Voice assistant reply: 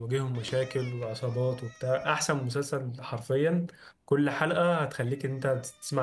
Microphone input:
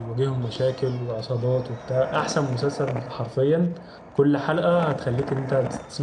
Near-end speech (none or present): none